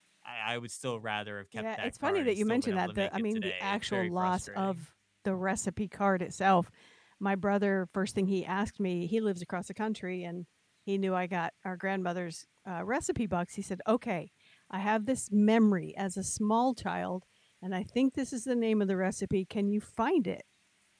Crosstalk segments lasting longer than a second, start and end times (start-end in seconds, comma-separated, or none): 1.5-4.8